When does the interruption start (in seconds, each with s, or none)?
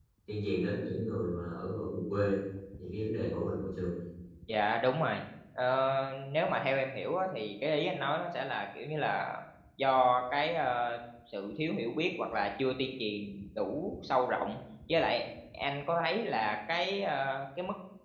none